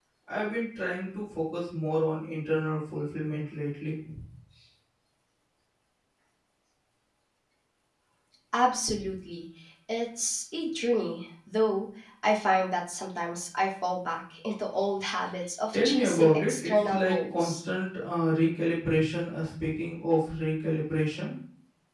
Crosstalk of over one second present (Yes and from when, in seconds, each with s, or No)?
Yes, from 15.7 s